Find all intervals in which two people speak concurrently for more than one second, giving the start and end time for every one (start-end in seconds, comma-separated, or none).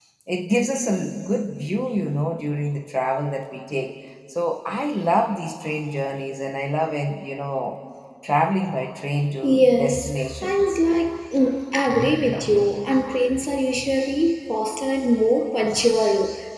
9.4-10.8